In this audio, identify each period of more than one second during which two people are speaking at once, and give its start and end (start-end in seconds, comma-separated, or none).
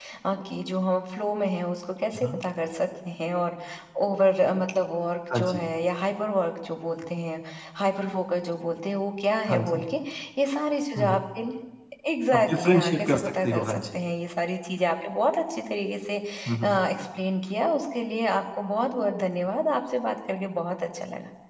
12.3-14.0